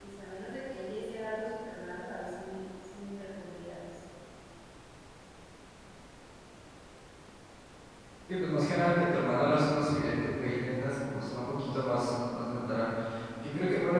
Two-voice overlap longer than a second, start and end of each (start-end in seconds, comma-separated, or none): none